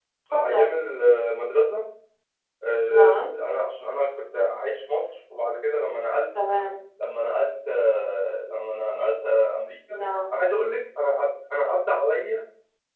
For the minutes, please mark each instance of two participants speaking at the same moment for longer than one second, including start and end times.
none

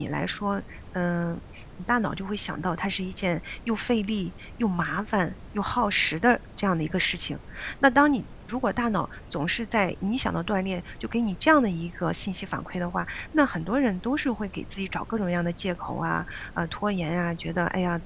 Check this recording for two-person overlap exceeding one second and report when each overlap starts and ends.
none

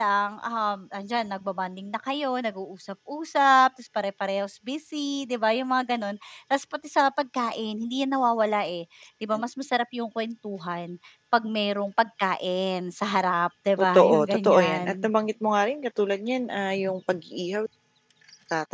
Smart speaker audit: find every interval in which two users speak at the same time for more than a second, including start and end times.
13.8-15.1

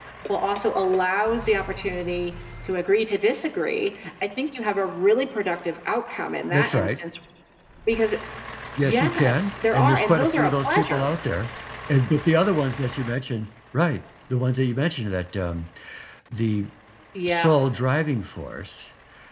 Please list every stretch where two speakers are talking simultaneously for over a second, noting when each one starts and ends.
8.8-11.1

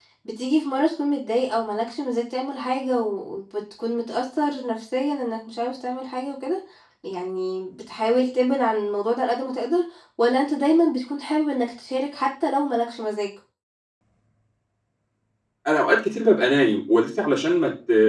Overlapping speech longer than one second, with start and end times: none

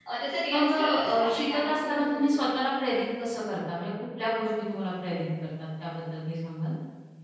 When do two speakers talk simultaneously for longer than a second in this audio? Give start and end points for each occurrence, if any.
0.5-2.3

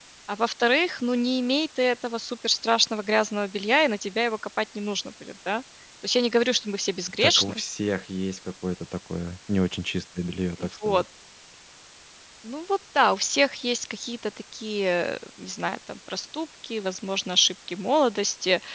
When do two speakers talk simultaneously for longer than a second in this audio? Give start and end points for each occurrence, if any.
none

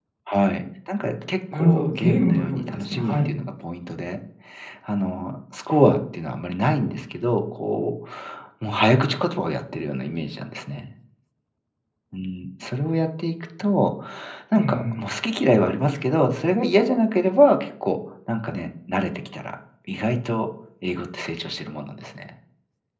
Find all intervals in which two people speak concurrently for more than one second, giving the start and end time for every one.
1.5-3.3

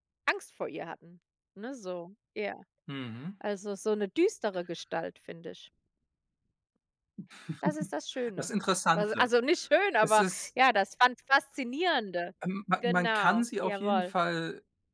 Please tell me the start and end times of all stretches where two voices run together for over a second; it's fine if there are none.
12.8-14.1

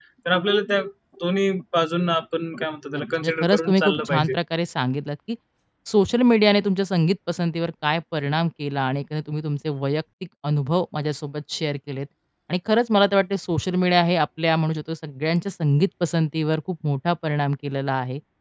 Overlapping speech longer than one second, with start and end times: 2.9-4.3

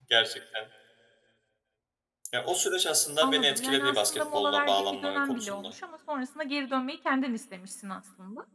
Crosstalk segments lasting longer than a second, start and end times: 3.2-5.7

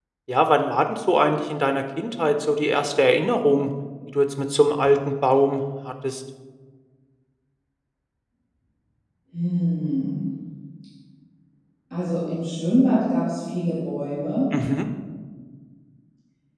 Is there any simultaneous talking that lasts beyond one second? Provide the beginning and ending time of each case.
none

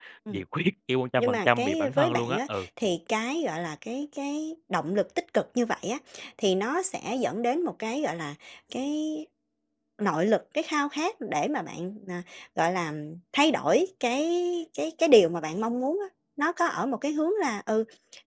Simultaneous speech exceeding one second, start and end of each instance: 1.2-2.7

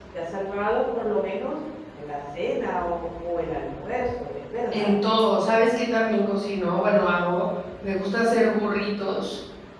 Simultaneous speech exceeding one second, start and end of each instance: none

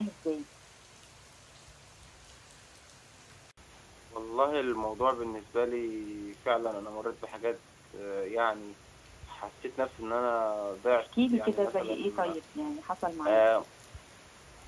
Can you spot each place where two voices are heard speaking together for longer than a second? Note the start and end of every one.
10.9-12.4

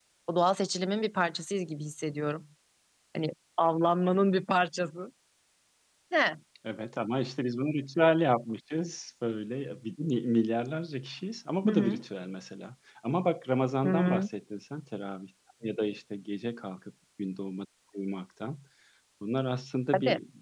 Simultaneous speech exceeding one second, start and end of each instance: none

